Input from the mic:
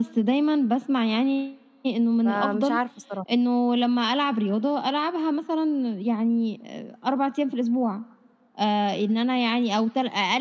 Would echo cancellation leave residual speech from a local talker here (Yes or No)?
Yes